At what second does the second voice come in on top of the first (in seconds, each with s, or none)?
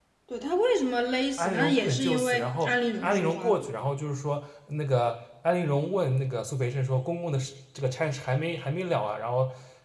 1.4 s